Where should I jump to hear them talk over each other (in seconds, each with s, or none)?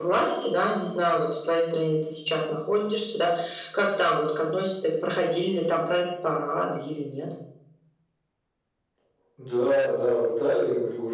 none